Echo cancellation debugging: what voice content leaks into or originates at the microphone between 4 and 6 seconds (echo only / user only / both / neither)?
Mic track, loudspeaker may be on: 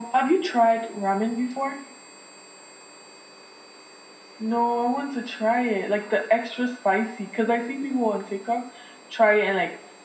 echo only